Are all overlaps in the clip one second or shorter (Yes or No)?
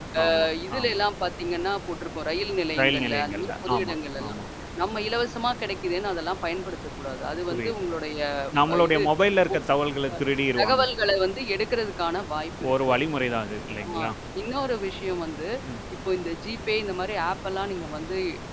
No